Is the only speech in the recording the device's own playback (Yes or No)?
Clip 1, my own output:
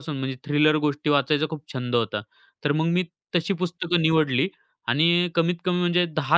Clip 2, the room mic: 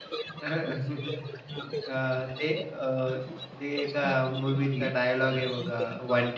No